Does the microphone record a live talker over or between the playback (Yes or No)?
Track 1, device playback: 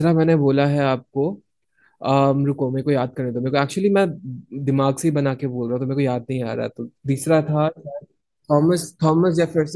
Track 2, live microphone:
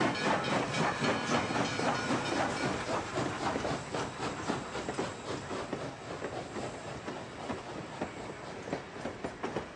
No